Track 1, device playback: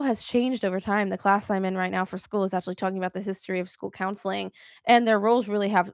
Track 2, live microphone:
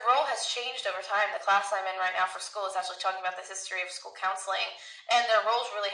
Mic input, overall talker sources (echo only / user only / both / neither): echo only